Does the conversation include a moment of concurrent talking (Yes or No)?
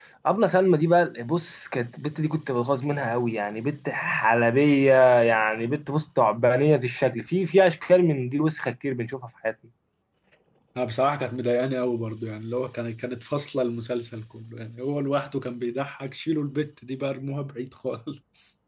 No